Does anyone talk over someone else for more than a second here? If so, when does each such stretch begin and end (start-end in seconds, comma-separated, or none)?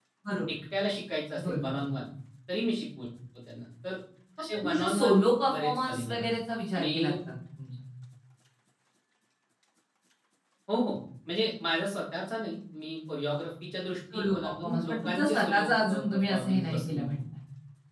4.5-6.2, 14.1-17.0